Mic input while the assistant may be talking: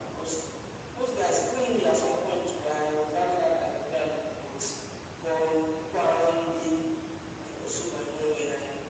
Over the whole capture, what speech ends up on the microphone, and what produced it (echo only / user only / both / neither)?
echo only